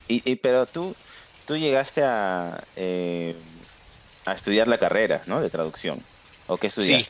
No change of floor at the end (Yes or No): No